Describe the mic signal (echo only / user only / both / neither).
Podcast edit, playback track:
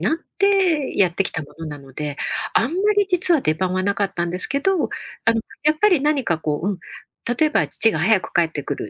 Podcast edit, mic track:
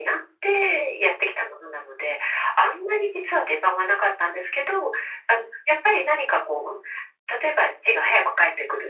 echo only